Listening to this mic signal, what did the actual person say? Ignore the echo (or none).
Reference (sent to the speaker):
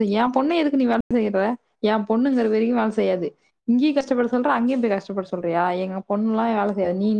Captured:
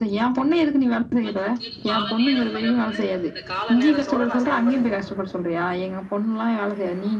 அதுக்குன் கால நேரம் வரப்ப அந்த கால நேரத்தோட நான் செயல்பட்டுக்குறே